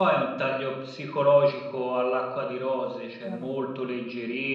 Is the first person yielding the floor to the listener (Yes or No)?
No